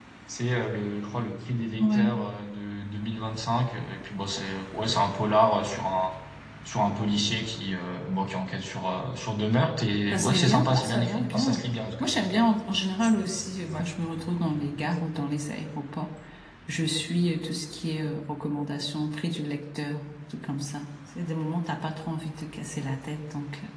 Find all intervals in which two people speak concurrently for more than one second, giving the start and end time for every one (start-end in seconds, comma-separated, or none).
10.1-11.6